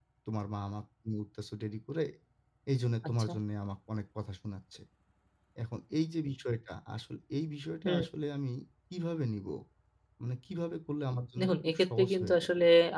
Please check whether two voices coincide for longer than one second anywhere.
Yes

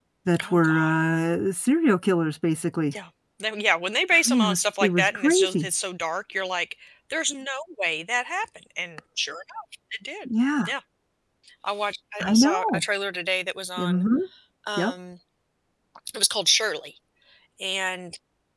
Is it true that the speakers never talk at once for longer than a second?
No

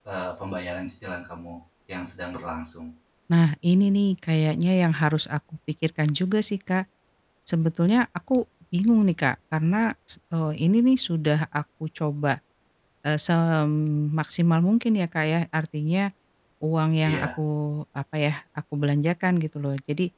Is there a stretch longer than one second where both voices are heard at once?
No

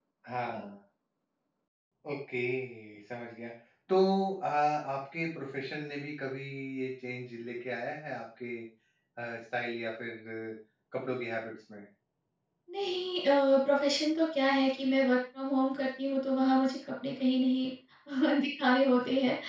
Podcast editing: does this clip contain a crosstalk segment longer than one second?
No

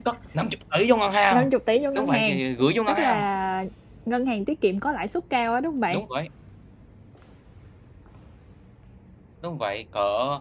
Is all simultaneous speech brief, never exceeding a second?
Yes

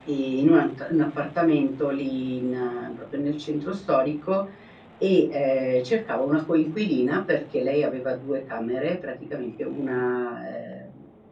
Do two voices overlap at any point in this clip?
No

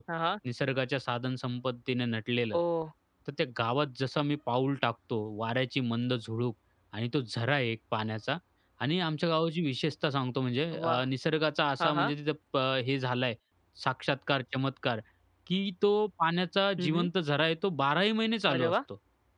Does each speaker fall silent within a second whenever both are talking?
Yes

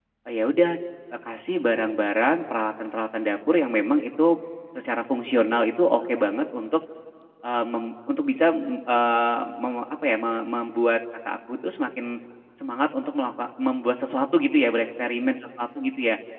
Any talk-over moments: No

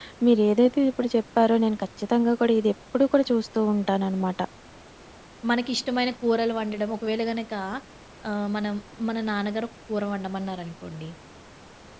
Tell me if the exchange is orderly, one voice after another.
Yes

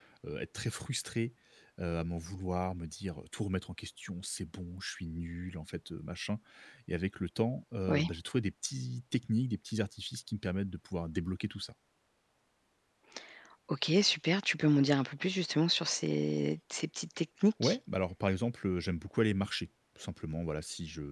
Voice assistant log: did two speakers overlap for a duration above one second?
No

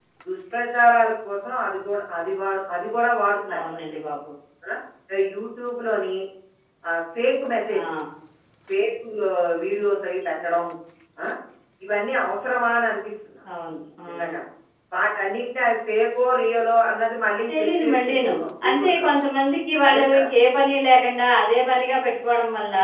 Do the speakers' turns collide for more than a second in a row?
Yes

